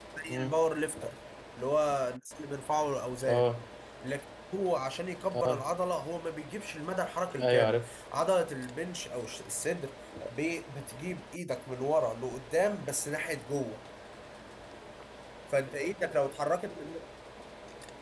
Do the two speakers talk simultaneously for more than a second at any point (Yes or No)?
No